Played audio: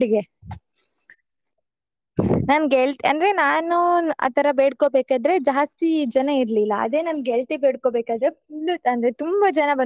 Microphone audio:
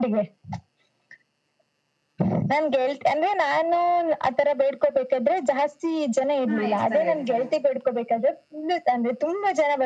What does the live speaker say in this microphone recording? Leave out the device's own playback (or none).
ಹಾ ಇರ್ತಾರೆ ಇರ್ತಾರೆ.